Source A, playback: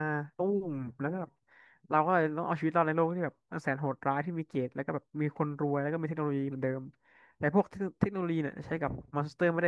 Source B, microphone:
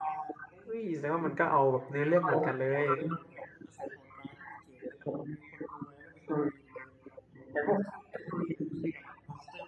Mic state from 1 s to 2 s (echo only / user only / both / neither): both